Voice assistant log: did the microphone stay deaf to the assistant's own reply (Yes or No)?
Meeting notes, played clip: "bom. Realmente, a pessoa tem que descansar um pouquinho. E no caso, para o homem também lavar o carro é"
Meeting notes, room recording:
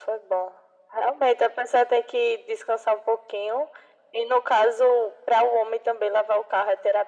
No